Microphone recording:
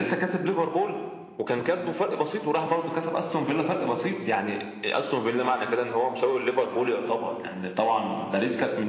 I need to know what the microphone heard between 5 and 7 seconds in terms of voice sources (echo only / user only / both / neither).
echo only